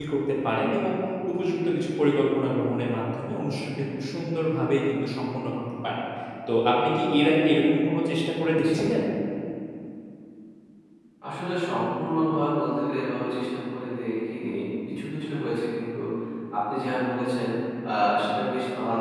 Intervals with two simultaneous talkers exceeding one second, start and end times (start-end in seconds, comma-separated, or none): none